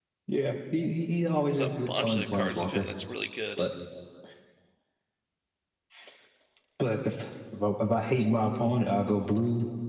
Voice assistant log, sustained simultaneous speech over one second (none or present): present